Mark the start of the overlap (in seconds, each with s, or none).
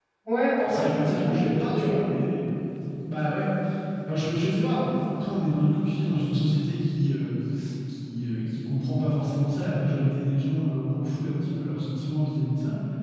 0.7 s